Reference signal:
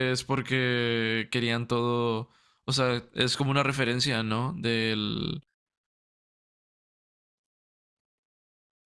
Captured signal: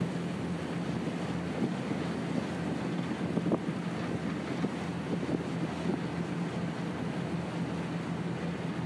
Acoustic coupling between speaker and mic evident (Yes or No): No